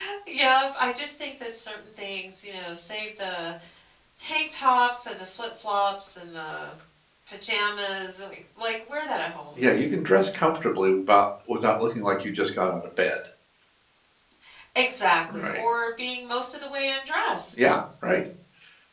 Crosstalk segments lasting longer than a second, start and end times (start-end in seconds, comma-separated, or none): none